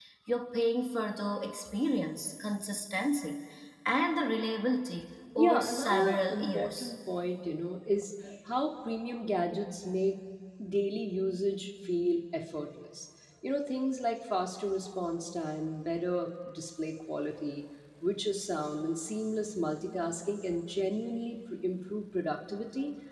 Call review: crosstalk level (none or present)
present